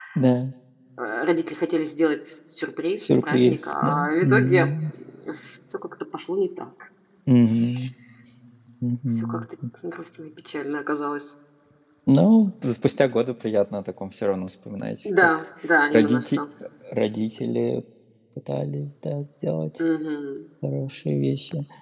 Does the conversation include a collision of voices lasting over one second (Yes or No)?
Yes